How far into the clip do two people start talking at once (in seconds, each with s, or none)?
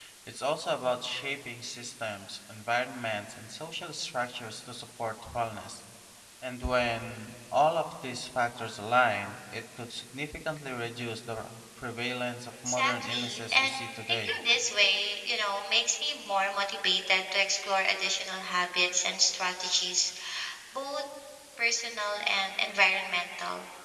12.7 s